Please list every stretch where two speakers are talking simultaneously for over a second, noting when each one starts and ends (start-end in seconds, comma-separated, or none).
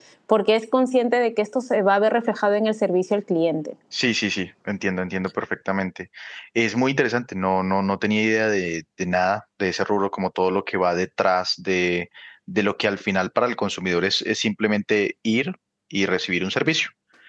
none